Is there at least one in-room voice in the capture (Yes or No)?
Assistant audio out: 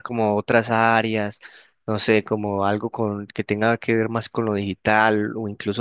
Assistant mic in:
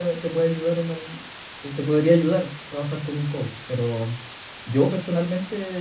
Yes